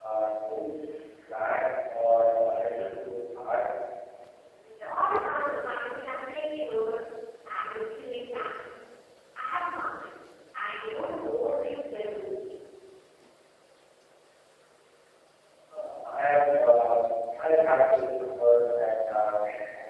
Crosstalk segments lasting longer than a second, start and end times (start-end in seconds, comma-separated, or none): none